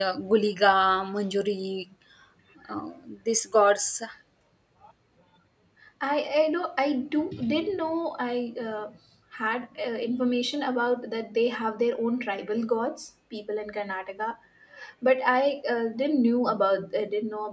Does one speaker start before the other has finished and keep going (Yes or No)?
No